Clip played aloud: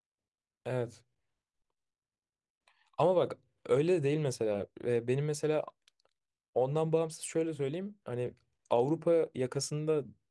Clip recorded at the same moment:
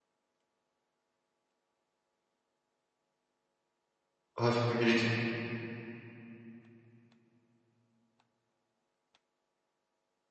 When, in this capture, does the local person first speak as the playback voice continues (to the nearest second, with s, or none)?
4 s